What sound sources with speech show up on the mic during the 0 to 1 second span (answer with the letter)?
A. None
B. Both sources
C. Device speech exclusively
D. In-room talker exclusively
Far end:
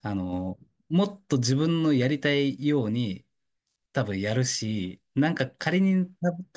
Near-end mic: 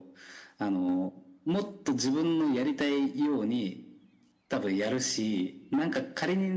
C